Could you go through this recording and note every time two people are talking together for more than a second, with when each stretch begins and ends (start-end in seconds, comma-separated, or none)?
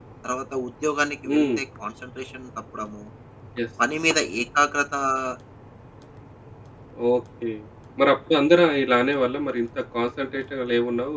none